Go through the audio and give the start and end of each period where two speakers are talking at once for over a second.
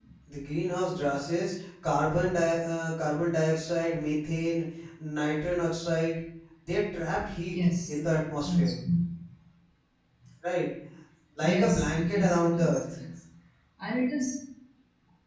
11.4-12.8

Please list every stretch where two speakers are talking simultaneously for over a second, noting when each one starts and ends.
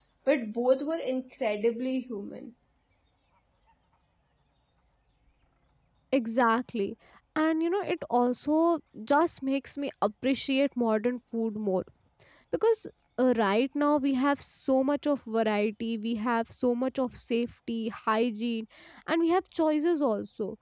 none

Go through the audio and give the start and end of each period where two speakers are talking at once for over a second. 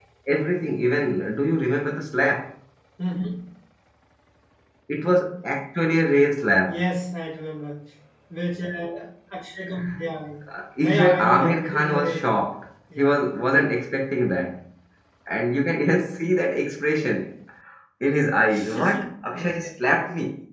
10.8-12.4

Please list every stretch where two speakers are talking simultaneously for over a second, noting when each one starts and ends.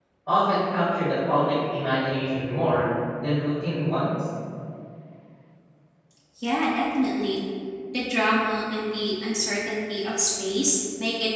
none

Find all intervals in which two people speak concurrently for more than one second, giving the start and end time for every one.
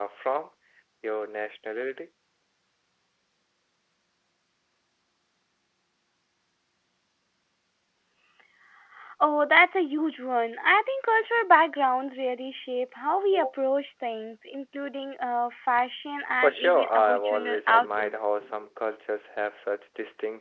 16.4-18.1

